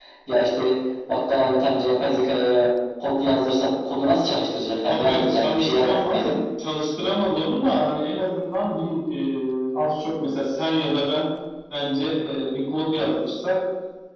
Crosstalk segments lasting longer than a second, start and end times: 4.9-6.4

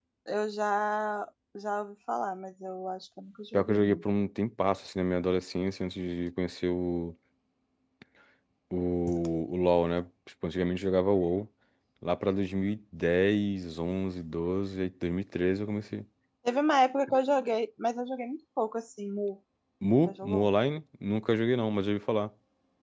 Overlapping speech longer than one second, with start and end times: none

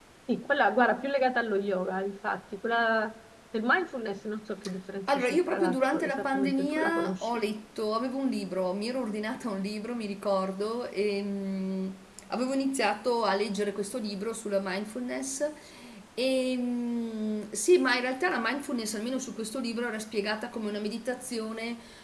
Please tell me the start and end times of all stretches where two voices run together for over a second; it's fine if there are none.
5.1-7.4

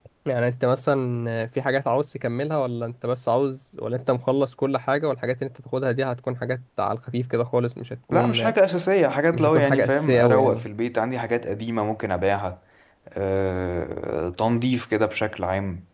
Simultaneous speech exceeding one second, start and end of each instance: 9.3-10.7

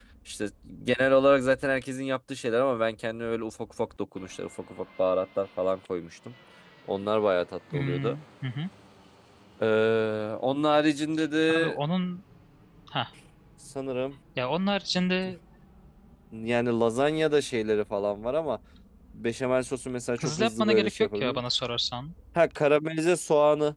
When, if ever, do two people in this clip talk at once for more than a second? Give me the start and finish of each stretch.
20.2-21.4

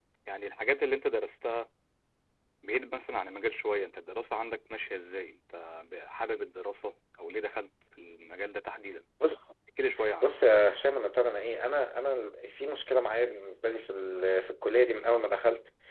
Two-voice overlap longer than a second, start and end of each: none

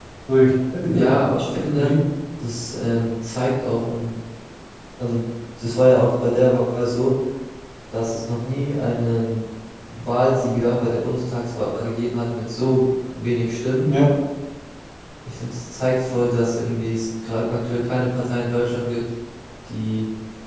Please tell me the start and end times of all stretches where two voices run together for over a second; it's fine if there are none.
none

